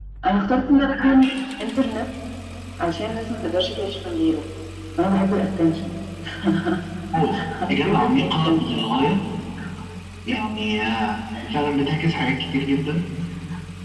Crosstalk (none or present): present